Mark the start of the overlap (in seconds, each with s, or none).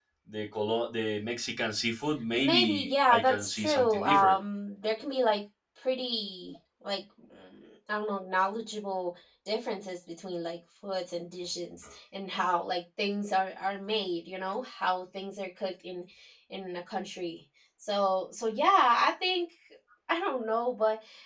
2.3 s